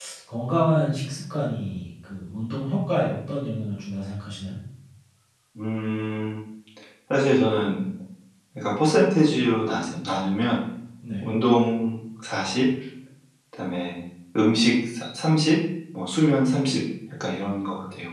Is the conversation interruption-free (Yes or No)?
Yes